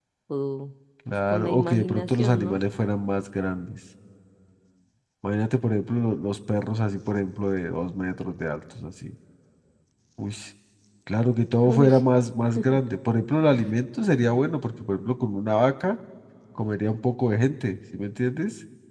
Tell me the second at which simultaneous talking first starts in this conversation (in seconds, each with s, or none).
1.3 s